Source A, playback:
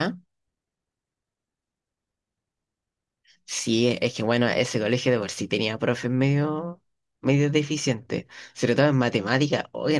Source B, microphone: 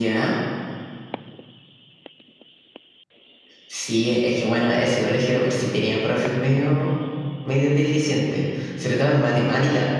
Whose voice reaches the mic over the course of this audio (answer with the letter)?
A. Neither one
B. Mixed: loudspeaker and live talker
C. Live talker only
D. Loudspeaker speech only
D